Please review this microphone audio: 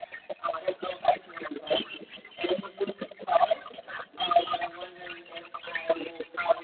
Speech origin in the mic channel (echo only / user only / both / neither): echo only